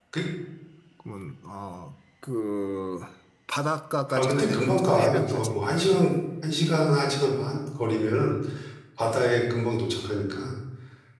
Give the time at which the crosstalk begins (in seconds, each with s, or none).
4.1 s